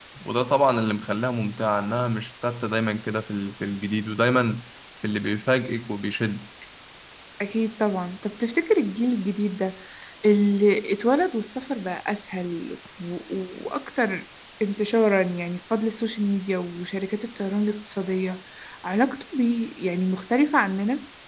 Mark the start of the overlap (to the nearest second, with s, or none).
none